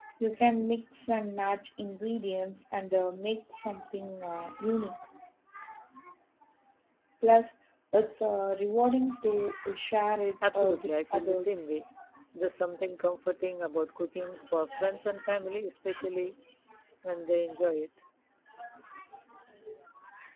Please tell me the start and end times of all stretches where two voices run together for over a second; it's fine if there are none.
10.5-11.7

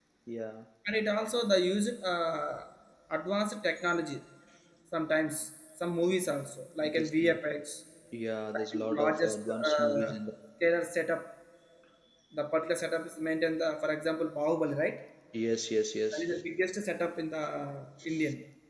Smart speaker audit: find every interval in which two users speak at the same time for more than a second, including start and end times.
8.5-10.2

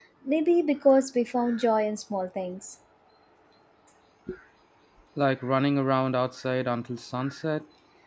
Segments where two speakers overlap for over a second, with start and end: none

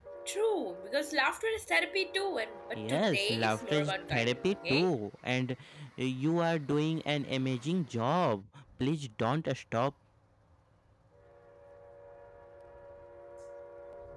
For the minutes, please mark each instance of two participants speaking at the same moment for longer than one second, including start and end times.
2.8-4.9

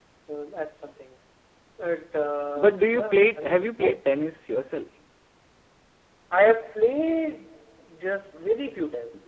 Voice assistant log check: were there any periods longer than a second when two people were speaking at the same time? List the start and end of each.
2.5-3.9

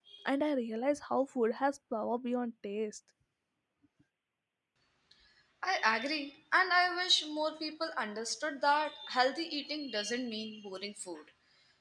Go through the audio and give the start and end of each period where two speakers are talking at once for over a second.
none

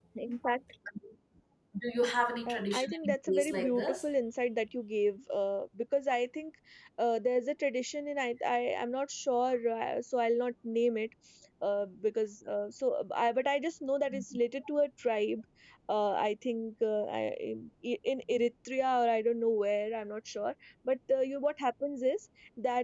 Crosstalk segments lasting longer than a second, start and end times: 2.5-4.0

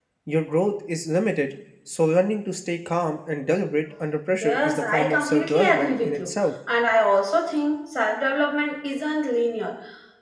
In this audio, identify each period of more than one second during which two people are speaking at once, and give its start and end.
4.4-6.3

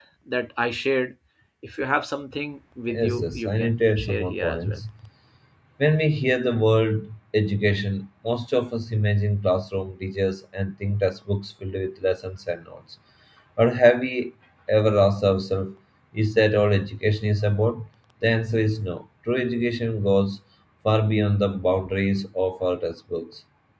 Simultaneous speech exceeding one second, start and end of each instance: 2.9-4.8

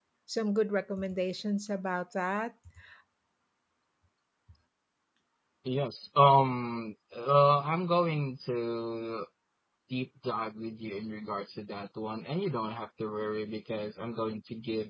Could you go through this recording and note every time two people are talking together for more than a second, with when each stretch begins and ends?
none

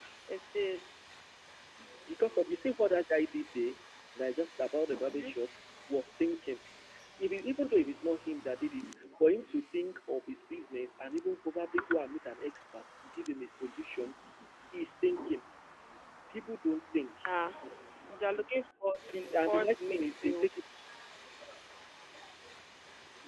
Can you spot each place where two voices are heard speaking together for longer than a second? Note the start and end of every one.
19.1-20.5

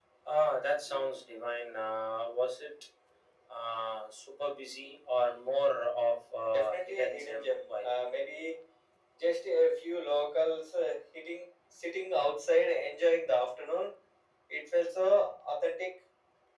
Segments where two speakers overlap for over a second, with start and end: 6.5-7.9

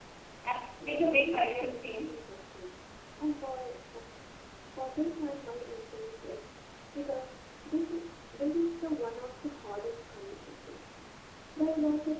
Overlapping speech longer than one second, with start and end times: 0.8-2.2

